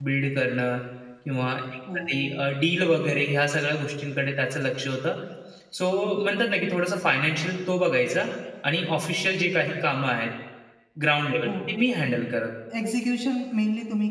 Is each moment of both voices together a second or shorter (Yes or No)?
Yes